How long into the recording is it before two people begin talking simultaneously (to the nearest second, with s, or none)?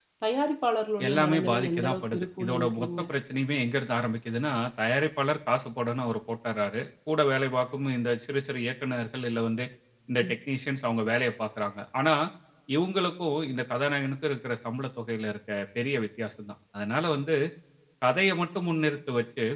1 s